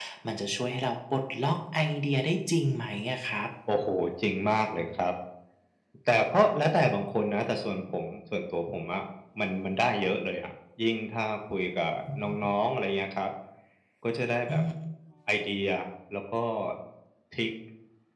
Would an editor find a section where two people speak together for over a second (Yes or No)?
No